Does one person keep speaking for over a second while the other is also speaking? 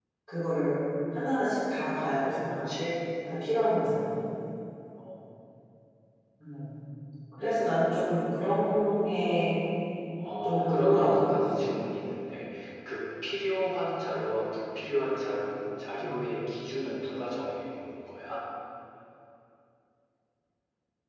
Yes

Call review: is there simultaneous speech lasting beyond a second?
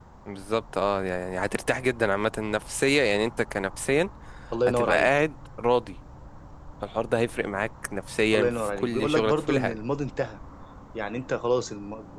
Yes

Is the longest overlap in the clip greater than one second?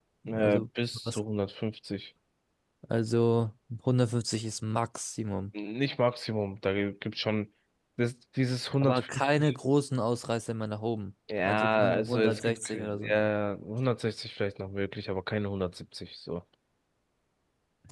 Yes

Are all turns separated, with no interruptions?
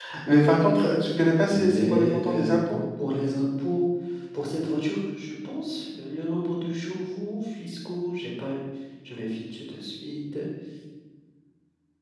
No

